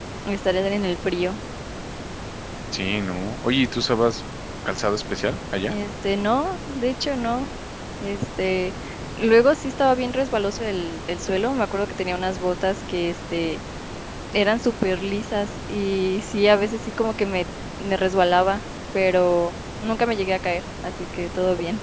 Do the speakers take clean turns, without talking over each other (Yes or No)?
Yes